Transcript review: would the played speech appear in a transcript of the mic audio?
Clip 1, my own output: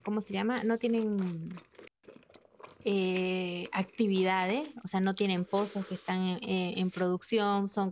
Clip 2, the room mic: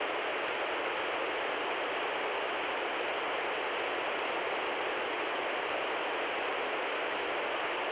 No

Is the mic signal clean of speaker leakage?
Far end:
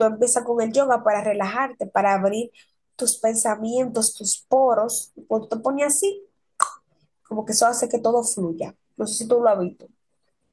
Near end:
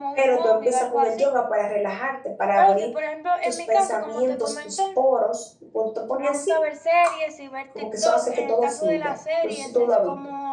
No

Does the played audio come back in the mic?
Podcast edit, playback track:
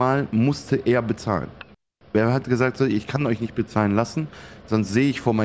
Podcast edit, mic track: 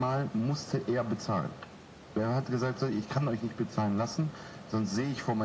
Yes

